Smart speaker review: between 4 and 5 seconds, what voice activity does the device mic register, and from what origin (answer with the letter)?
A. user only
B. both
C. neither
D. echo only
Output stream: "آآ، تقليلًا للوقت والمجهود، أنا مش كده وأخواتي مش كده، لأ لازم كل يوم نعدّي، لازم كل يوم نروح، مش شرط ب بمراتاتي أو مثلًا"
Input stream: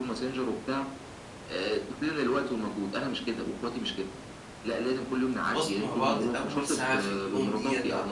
D